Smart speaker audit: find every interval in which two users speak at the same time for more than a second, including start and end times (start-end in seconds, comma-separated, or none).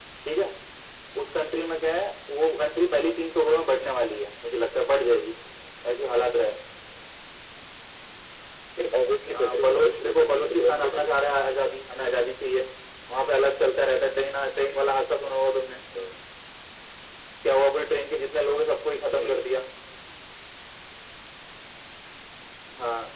9.3-11.3